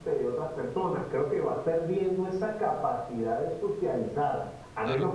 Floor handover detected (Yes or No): No